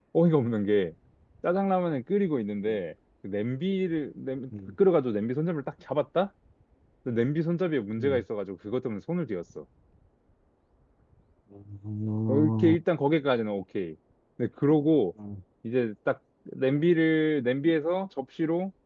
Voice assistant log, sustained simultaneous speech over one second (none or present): none